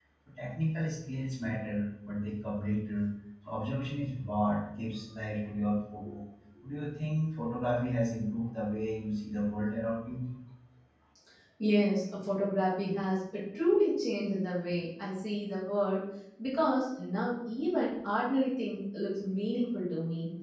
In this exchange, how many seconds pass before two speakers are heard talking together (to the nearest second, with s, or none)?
none